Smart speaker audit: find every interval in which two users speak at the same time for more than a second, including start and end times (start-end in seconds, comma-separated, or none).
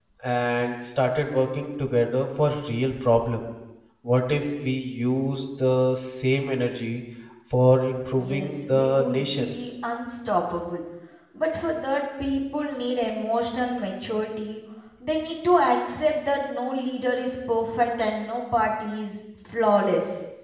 8.2-9.5